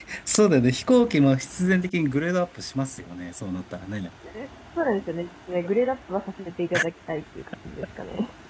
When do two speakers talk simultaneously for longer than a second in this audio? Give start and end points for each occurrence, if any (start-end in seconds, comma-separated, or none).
none